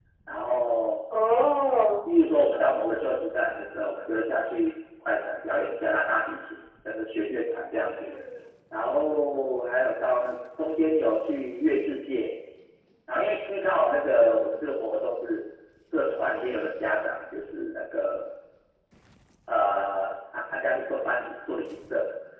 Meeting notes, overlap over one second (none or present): none